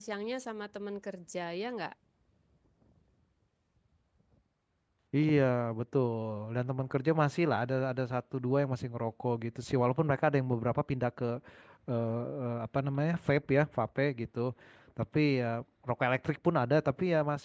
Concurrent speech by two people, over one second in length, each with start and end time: none

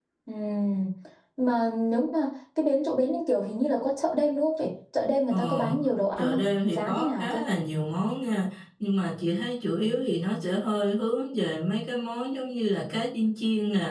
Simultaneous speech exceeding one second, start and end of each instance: 6.2-7.4

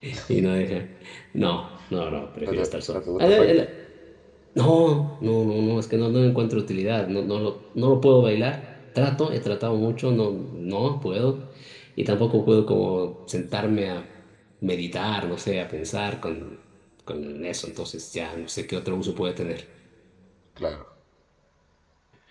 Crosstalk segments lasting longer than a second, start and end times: 2.5-3.7

